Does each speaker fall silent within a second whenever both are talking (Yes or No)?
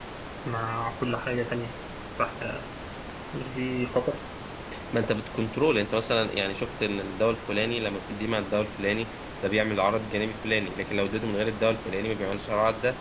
Yes